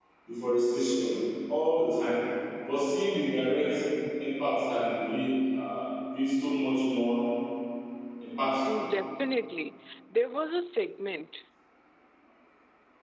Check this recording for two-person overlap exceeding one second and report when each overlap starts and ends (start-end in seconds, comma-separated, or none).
none